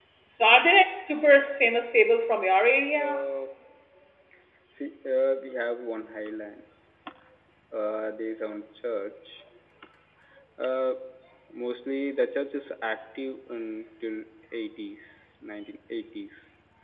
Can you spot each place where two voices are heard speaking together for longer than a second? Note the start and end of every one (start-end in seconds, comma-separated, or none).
none